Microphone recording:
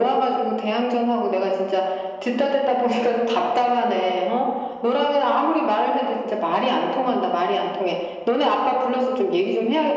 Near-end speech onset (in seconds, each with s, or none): none